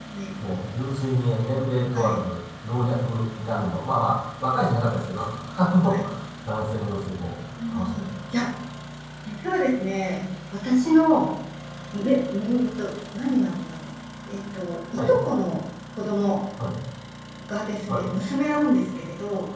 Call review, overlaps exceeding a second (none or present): none